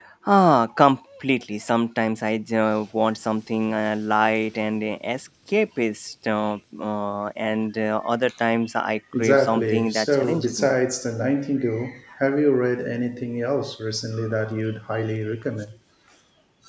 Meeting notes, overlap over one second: present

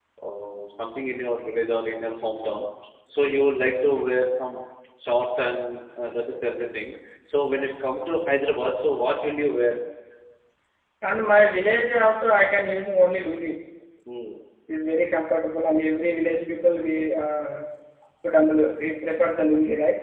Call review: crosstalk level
none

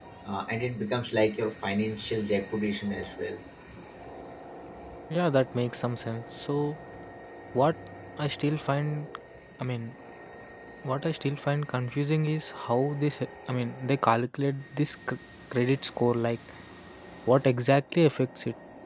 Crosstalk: none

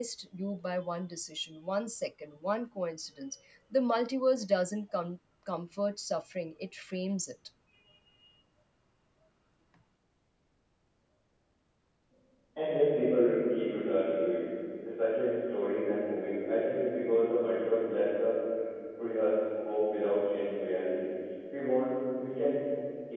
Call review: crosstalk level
none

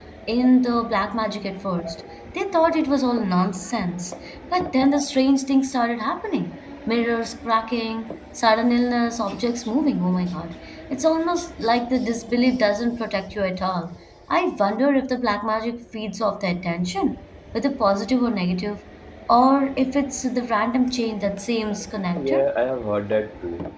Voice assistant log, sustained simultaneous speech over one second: none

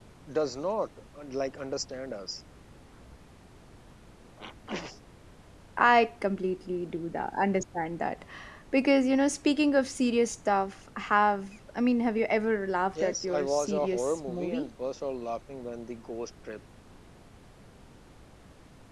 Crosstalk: present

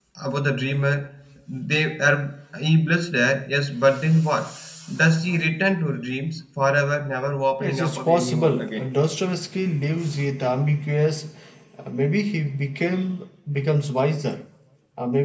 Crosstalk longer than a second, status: present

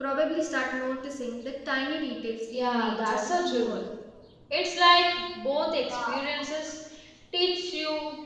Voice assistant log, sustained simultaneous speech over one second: present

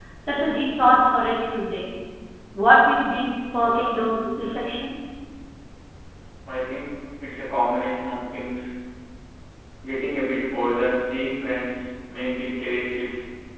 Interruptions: none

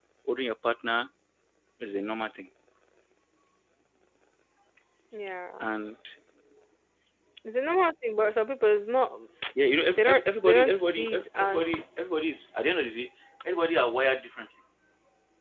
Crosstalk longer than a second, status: present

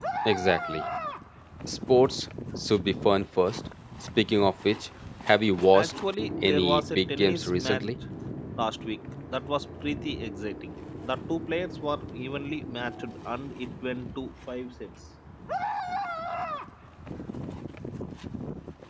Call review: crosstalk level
present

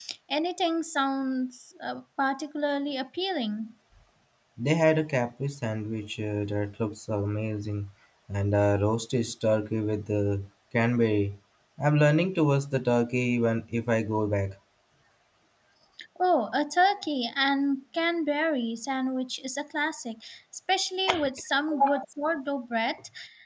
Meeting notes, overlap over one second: none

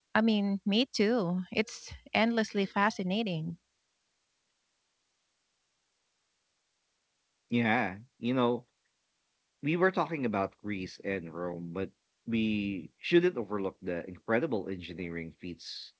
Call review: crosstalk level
none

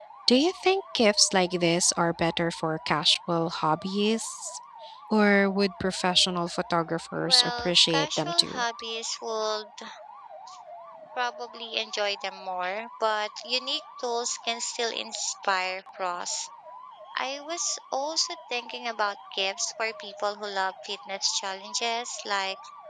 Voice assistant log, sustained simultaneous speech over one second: present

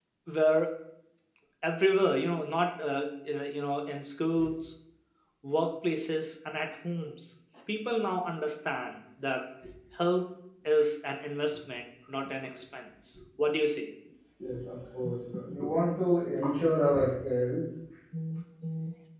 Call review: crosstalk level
none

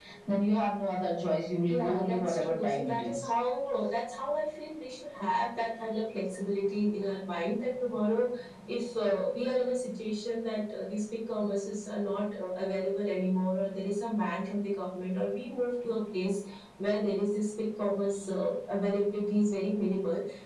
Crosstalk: present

